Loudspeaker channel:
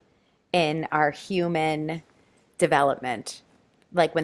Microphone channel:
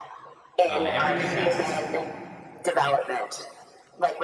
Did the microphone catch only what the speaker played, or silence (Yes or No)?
No